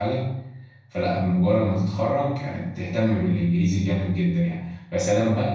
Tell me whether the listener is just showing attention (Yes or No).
Yes